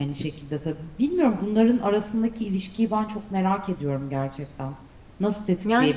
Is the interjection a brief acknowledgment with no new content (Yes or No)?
Yes